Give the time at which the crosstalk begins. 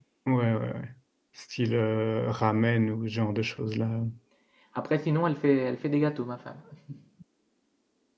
none

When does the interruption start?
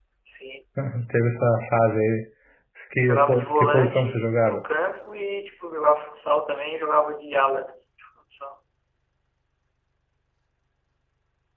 3 s

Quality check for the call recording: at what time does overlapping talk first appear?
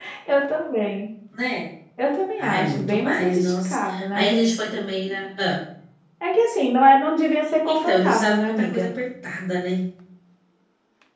2 s

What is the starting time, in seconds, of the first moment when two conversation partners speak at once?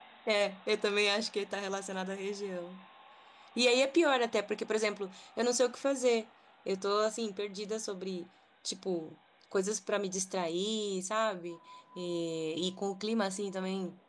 none

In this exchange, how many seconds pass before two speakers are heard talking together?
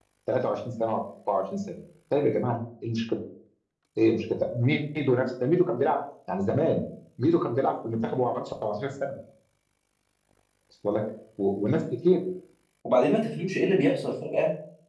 none

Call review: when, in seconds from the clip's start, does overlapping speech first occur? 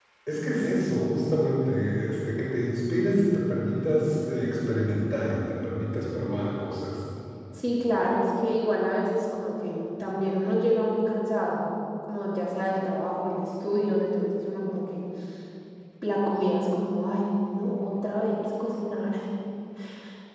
none

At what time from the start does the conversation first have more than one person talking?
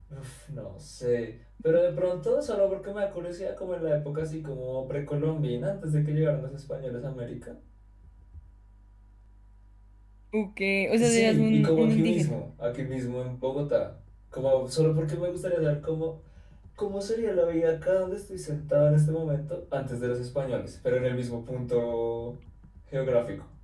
11 s

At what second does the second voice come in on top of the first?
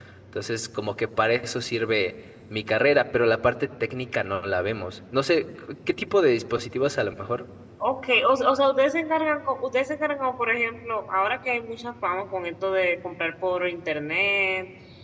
none

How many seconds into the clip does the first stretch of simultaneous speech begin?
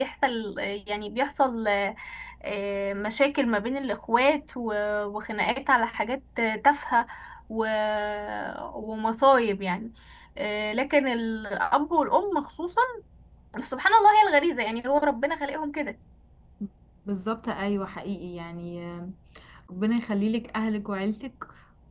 none

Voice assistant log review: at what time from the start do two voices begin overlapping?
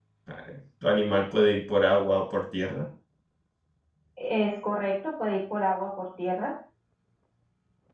none

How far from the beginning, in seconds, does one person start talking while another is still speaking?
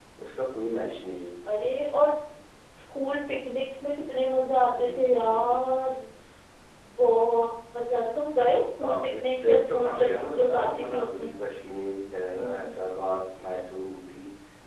5 s

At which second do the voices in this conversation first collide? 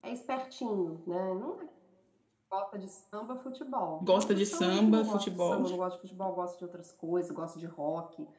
4 s

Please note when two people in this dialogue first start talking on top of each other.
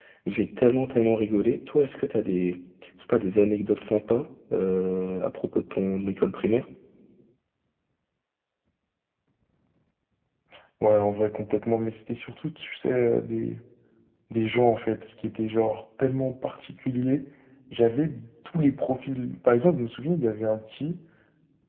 none

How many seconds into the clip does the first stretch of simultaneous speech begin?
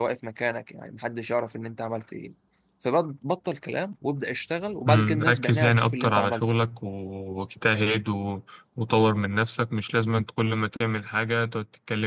5 s

